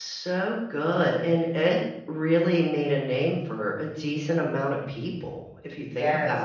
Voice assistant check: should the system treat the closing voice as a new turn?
Yes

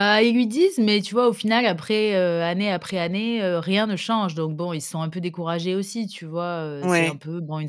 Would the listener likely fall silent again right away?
Yes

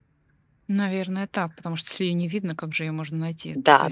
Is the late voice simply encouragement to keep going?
No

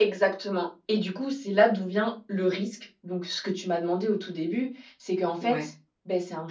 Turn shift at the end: No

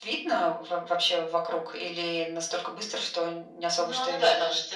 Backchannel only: No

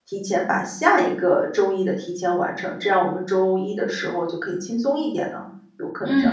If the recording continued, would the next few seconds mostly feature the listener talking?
Yes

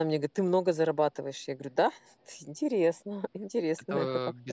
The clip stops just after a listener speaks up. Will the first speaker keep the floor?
No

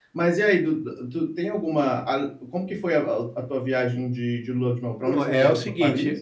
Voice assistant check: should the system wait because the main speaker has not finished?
No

